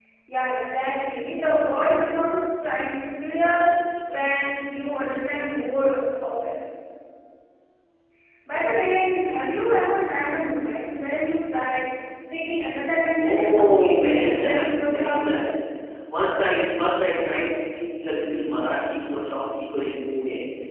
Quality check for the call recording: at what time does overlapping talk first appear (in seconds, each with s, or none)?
13.2 s